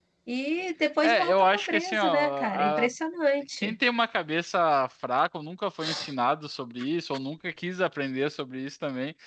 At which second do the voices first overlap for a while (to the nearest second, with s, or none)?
1 s